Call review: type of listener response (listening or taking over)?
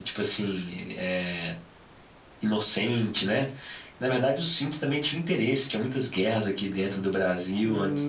taking over